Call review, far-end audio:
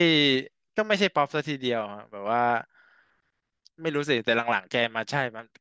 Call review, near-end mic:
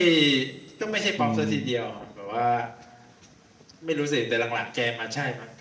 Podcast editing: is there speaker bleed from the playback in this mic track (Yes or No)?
Yes